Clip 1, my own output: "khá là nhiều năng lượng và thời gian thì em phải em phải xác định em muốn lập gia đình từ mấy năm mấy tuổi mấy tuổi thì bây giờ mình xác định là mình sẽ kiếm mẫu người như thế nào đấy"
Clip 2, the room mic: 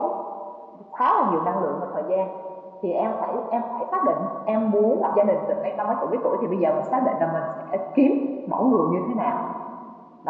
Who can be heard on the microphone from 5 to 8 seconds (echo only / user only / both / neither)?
echo only